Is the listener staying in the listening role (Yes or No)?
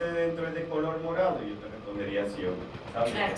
No